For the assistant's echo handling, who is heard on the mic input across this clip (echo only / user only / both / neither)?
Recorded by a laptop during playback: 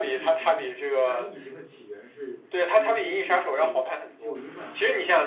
both